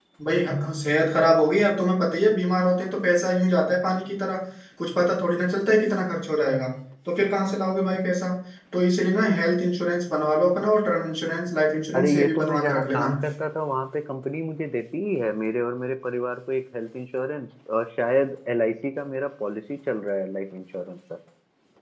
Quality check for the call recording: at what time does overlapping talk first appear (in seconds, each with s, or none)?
11.9 s